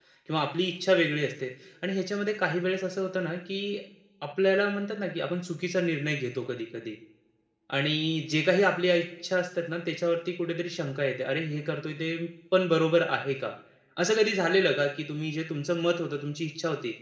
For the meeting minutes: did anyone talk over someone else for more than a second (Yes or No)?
No